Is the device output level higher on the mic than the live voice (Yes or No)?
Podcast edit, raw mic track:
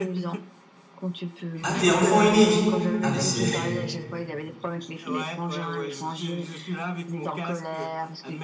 No